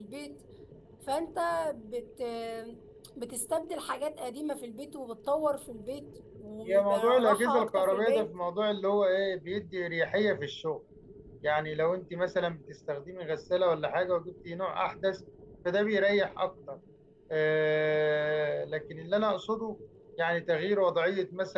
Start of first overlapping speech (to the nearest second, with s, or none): 7 s